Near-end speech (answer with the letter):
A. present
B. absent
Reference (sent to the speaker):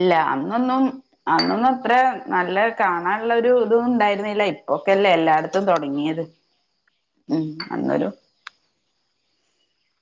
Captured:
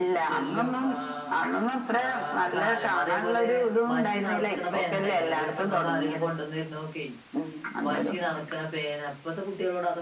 A